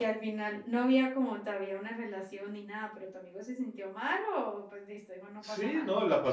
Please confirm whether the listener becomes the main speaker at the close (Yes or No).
Yes